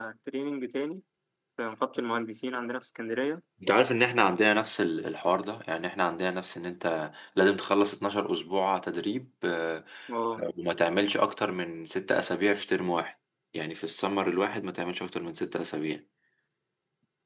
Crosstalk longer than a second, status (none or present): none